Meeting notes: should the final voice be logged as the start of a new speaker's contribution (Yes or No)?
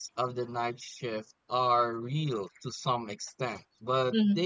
No